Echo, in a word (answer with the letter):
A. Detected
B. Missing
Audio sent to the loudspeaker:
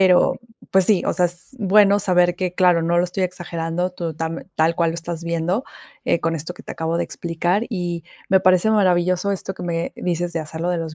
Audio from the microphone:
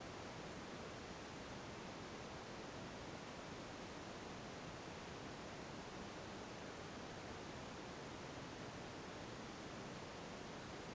B